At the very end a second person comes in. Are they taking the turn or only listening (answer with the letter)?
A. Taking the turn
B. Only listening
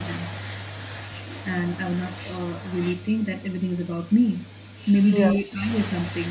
B